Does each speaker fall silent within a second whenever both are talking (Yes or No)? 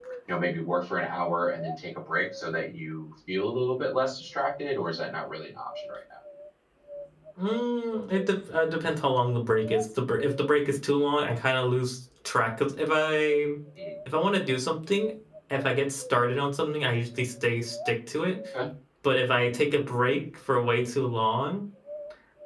Yes